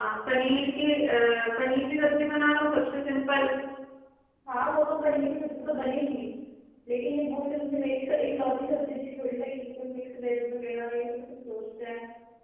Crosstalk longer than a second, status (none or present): none